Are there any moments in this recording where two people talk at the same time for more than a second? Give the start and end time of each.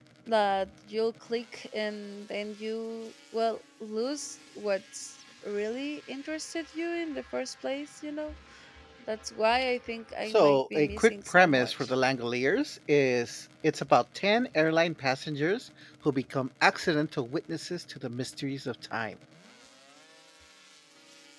10.3-11.9

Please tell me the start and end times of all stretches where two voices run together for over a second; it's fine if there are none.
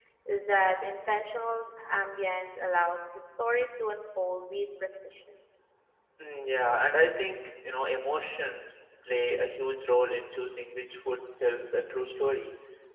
none

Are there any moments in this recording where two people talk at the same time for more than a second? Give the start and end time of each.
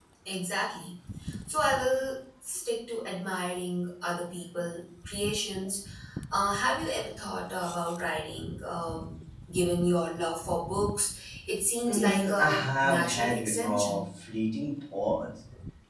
11.8-14.0

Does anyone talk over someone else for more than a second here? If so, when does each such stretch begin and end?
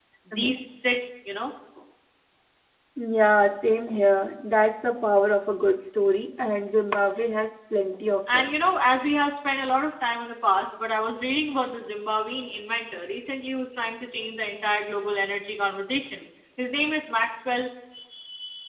none

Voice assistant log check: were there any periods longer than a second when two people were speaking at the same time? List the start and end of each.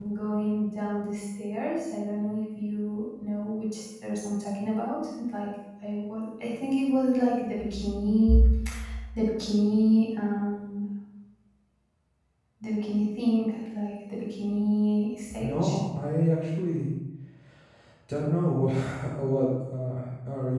none

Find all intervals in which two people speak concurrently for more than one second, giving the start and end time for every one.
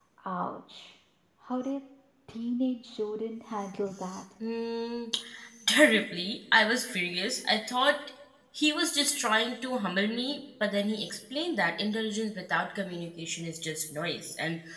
none

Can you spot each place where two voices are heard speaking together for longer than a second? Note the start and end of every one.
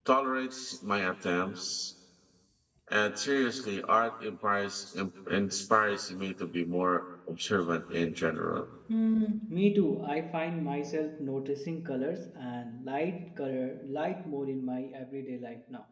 none

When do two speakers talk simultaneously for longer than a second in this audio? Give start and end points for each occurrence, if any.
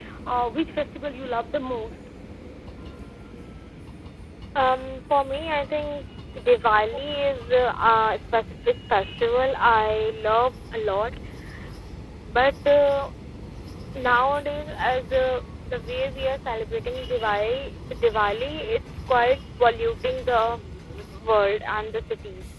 none

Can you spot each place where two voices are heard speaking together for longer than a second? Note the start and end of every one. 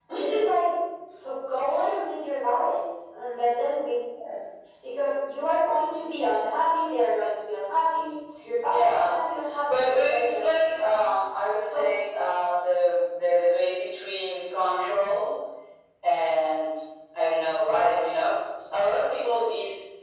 9.7-11.1

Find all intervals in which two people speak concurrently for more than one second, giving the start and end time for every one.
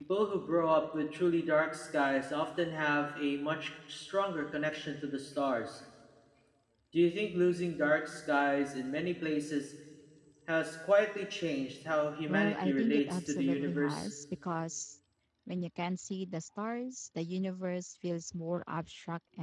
12.3-14.1

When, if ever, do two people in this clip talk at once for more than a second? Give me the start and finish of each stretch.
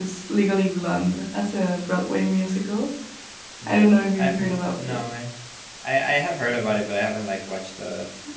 3.7-5.0

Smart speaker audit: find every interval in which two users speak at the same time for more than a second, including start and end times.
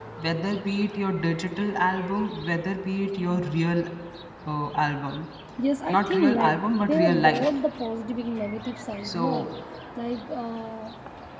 6.0-7.5

